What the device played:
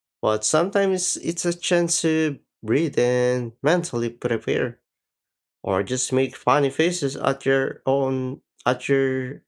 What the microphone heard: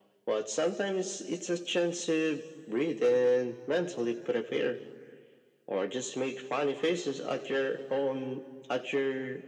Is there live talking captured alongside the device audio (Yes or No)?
No